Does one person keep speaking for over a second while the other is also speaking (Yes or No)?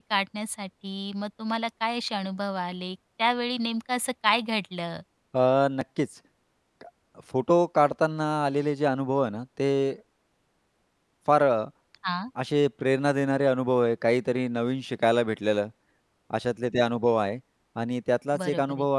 No